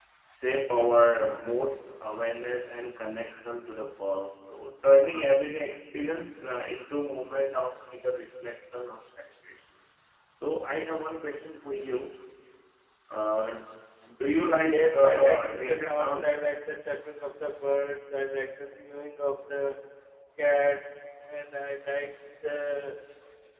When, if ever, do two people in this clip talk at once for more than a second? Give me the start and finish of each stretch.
14.7-16.4

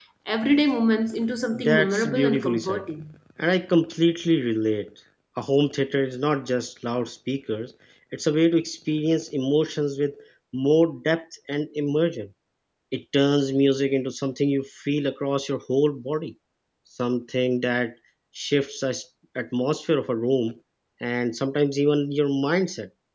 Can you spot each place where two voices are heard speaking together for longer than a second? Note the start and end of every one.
1.5-2.9

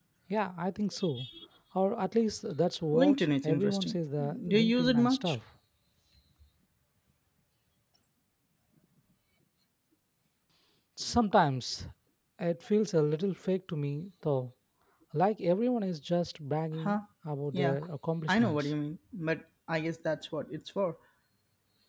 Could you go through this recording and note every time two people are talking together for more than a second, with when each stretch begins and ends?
2.9-5.3

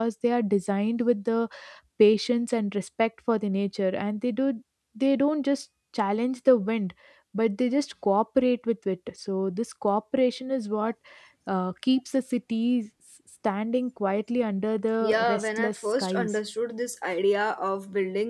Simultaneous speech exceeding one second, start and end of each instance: 15.0-16.4

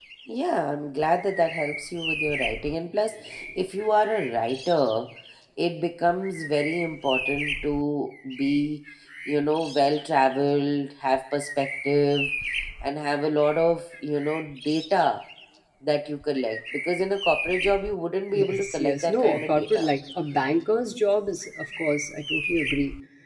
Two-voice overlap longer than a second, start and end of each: 18.3-19.9

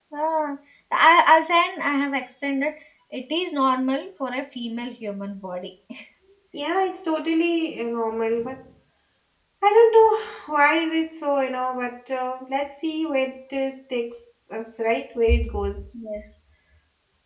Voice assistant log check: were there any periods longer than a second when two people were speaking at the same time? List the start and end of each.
none

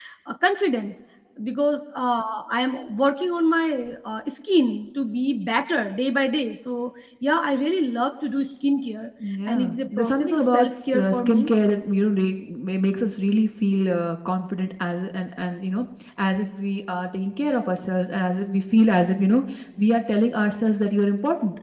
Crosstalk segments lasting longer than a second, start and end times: 9.5-11.5

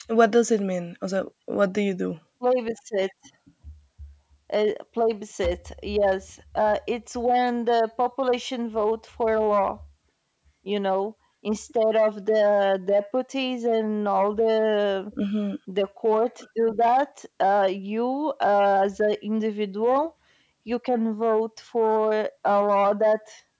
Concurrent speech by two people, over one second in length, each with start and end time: none

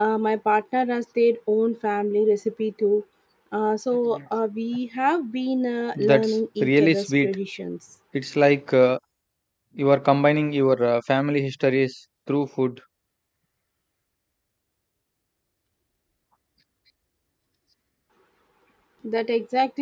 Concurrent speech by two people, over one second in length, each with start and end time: 6.0-7.3

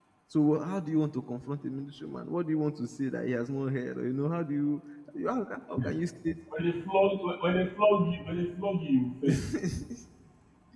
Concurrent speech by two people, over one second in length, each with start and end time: none

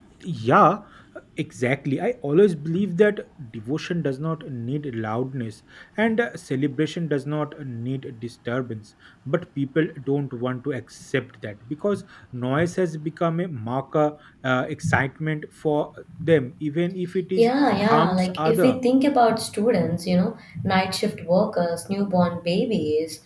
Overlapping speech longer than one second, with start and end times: 17.4-18.8

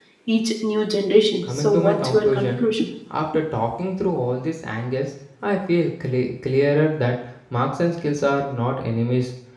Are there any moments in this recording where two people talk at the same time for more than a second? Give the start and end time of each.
1.4-2.6

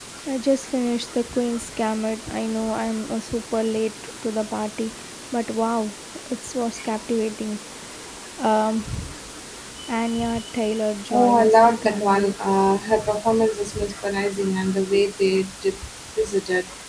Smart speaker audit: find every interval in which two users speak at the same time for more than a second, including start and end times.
11.1-12.3

